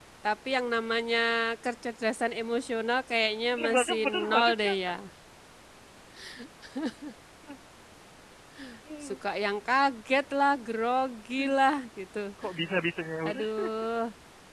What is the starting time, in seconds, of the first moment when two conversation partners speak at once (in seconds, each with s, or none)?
3.5 s